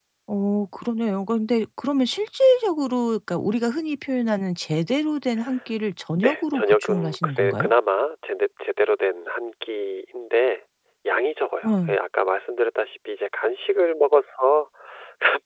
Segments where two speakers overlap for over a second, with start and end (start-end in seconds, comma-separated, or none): 6.2-7.7